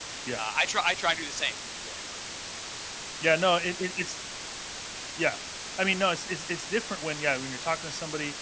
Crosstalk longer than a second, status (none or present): none